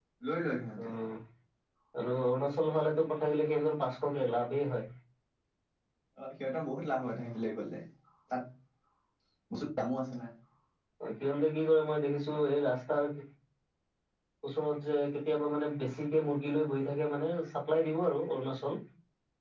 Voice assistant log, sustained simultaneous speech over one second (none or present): none